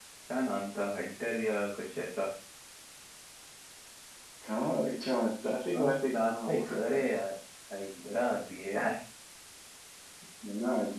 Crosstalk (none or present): present